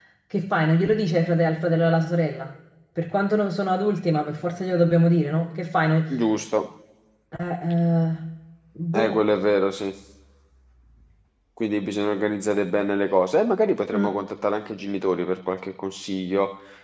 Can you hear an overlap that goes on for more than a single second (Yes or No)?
No